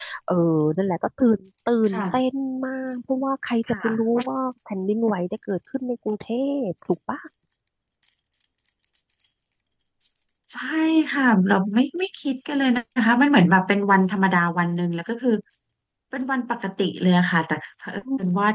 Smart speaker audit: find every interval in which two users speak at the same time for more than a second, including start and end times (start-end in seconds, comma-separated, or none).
none